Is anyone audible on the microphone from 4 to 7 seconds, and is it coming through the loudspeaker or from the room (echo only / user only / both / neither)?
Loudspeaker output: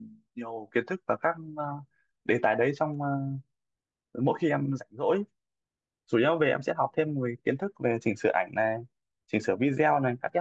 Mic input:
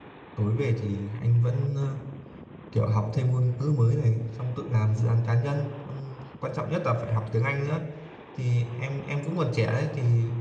user only